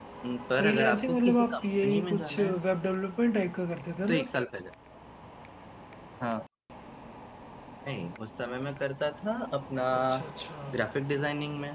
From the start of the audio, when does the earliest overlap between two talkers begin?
1 s

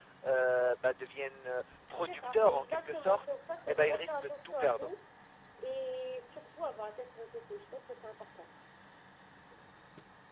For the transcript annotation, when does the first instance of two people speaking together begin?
2 s

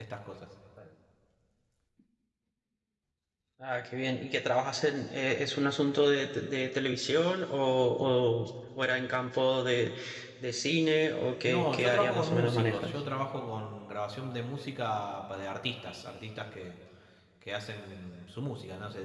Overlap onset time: 11 s

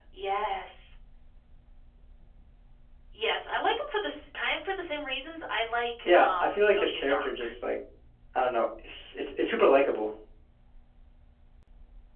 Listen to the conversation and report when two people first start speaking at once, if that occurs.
6 s

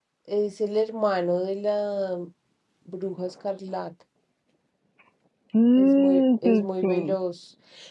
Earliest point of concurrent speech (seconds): 6 s

